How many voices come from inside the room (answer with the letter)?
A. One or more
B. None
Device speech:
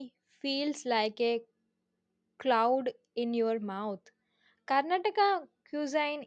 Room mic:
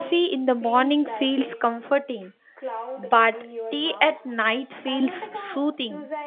A